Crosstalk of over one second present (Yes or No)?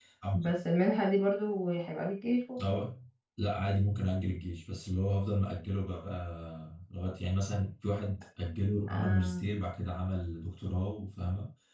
No